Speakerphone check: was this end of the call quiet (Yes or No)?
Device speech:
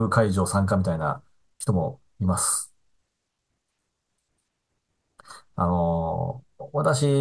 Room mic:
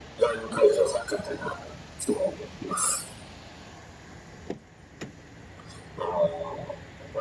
Yes